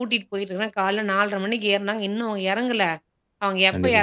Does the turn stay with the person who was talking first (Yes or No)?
Yes